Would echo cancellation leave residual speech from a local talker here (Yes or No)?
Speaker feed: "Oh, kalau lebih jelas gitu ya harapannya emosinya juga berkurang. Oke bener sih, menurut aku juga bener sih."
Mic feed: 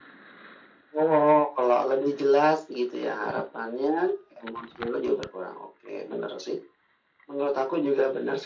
No